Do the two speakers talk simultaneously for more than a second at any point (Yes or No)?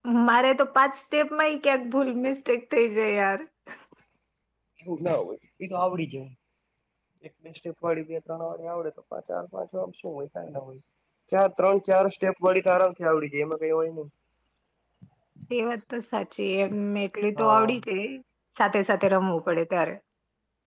No